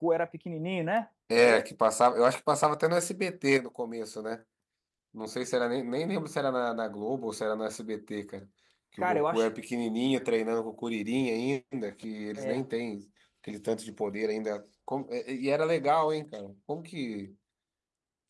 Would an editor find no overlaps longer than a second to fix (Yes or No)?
Yes